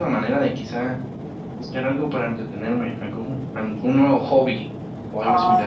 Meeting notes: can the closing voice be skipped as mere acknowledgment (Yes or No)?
No